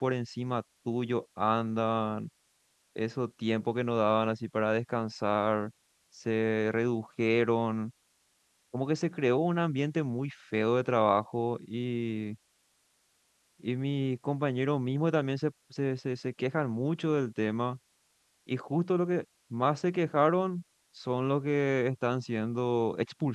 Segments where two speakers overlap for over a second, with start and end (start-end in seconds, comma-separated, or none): none